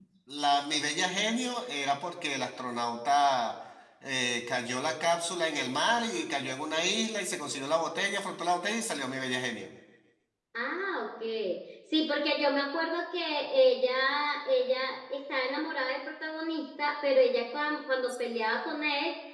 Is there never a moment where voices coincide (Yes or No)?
Yes